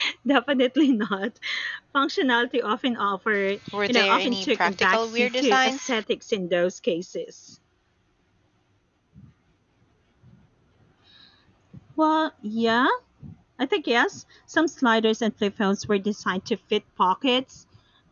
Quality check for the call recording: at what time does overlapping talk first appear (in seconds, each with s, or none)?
3.7 s